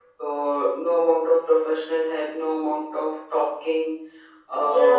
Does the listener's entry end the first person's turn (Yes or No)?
Yes